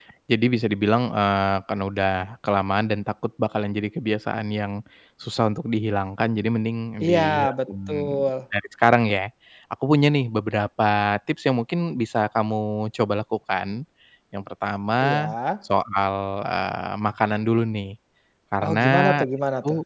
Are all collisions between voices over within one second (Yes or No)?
No